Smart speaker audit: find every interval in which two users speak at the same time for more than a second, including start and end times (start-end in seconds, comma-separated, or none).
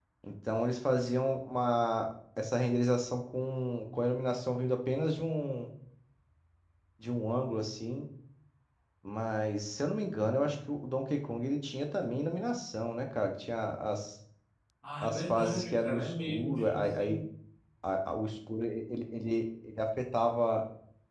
15.0-17.1